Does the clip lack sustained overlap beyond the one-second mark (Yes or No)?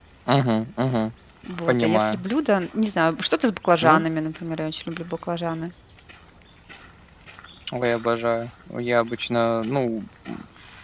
Yes